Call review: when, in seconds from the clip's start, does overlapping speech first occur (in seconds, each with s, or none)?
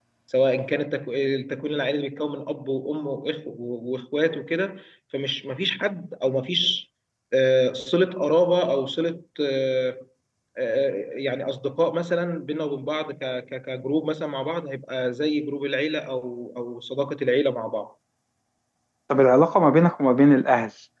none